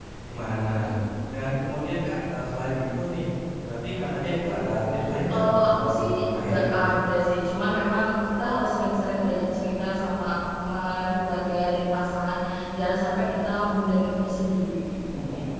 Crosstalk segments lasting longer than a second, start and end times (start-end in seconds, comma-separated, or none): 5.3-6.7